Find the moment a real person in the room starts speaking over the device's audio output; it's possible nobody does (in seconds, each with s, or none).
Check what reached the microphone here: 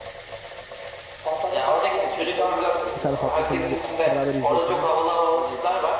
3.0 s